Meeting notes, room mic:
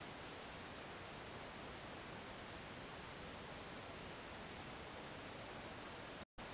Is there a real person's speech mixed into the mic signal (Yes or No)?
No